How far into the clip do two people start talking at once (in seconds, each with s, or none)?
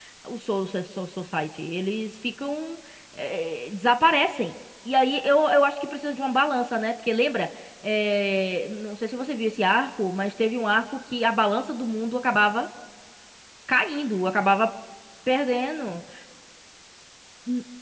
none